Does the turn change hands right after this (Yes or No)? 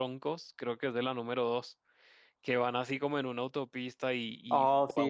No